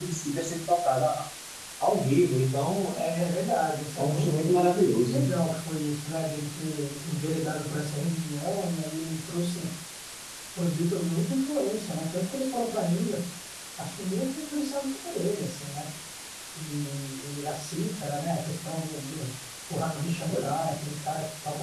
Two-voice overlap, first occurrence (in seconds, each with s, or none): 4.0 s